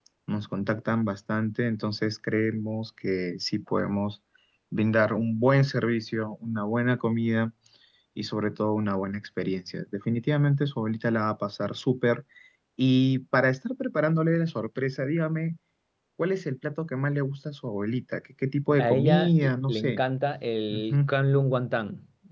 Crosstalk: present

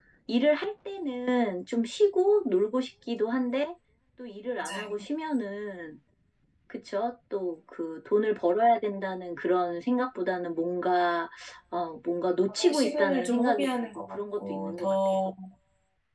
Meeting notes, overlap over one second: present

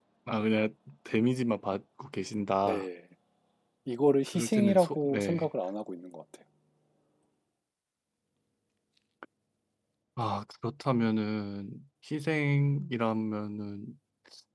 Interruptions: present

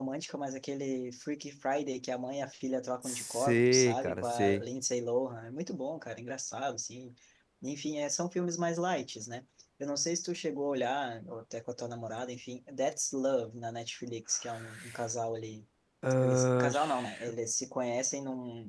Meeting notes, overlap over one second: present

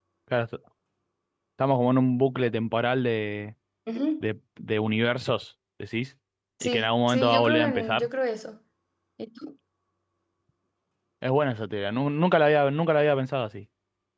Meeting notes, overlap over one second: present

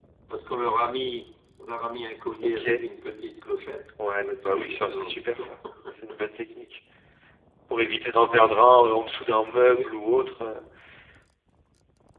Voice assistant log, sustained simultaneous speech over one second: present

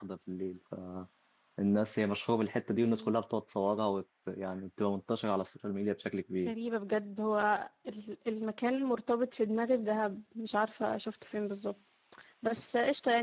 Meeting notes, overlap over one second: none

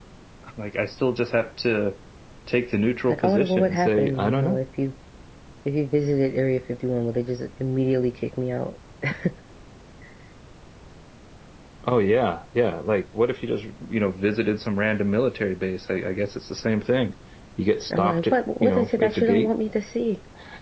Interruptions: present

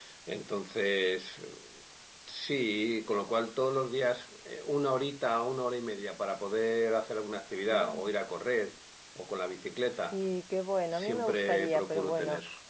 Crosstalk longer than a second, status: present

